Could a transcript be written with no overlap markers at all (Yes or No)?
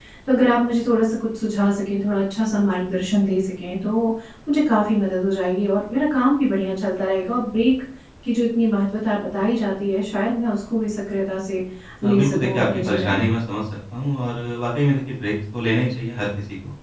No